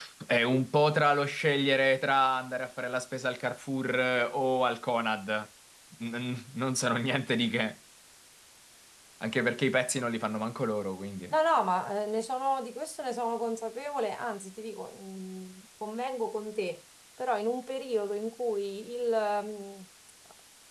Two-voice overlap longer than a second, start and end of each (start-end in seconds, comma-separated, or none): none